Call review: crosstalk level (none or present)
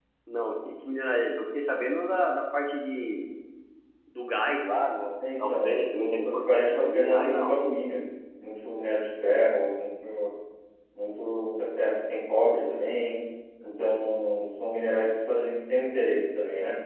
present